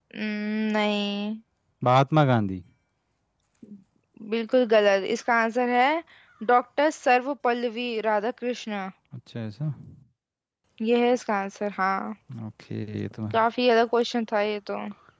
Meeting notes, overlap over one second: none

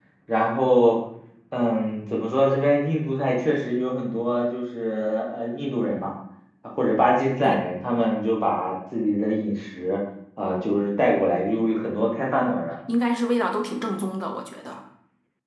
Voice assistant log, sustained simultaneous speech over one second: none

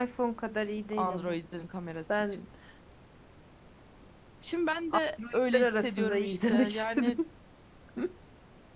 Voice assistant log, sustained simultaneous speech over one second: present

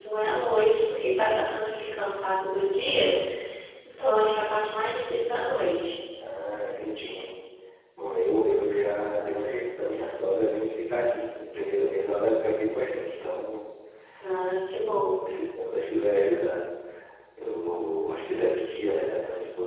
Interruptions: none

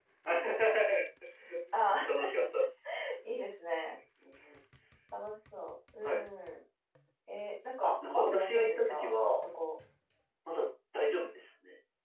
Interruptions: present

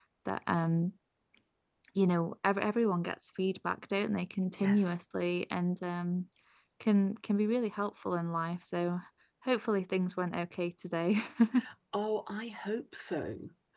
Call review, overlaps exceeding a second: none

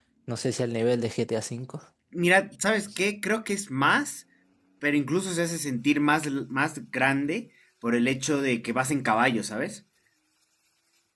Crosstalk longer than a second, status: none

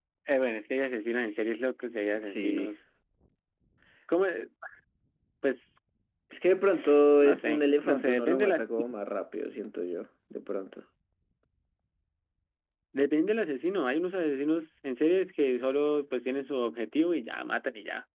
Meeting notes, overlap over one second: present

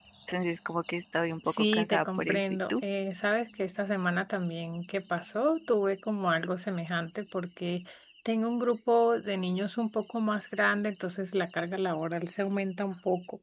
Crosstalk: present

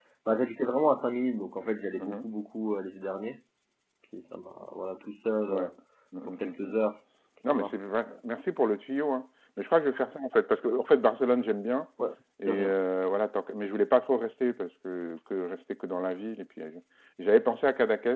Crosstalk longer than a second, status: none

